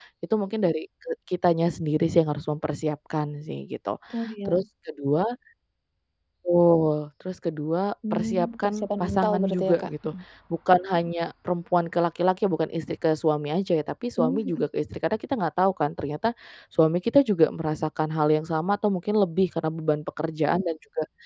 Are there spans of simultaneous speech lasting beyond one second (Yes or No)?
Yes